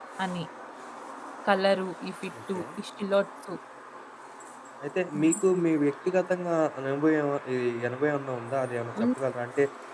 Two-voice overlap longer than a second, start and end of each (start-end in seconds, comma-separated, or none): none